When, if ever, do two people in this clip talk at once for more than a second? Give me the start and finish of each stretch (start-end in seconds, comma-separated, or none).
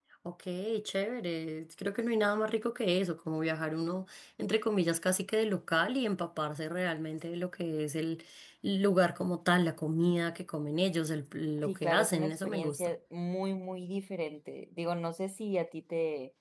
11.6-12.9